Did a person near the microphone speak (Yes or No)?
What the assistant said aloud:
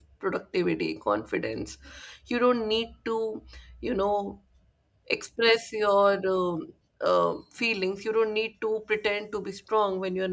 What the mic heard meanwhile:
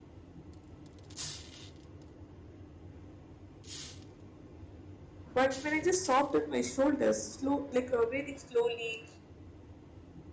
Yes